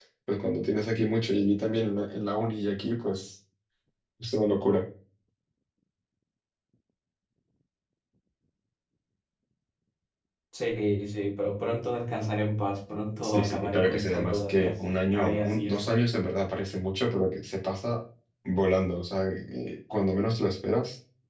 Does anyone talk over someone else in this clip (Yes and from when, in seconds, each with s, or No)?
Yes, from 13.2 s